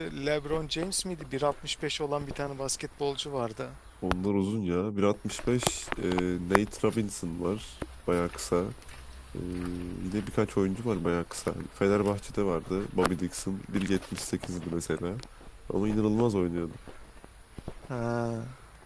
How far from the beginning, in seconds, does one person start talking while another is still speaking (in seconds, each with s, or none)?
none